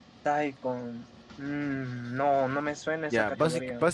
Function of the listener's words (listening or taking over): taking over